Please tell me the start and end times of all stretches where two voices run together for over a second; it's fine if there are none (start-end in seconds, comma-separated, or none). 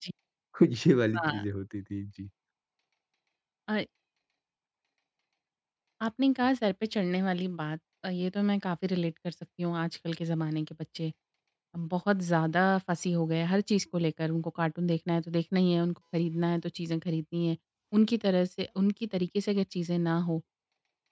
none